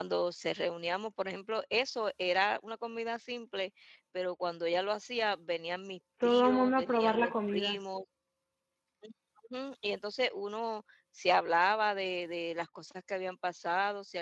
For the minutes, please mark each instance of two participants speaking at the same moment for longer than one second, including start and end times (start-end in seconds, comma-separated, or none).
6.2-7.8